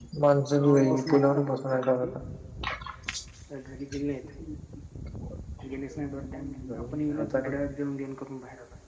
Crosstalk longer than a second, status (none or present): present